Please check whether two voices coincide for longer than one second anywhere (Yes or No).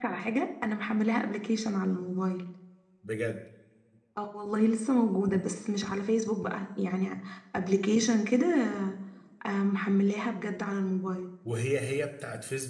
No